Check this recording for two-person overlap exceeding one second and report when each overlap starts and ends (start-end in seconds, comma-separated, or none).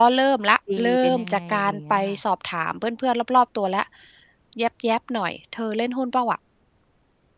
0.8-2.2